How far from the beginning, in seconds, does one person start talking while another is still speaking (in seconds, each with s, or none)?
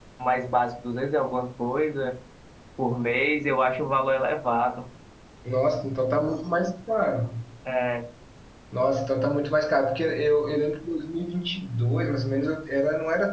none